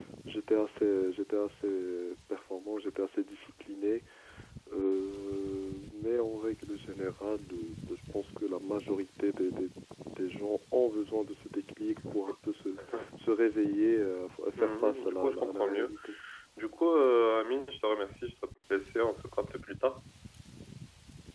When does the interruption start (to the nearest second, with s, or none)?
15 s